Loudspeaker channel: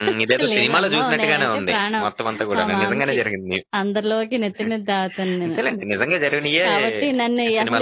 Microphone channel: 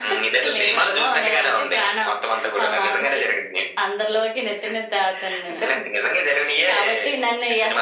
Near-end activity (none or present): none